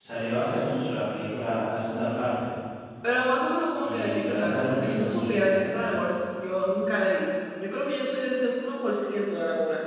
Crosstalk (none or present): present